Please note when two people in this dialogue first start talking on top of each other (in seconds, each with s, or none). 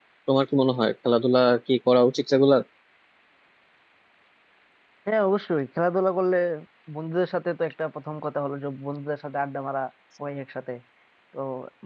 none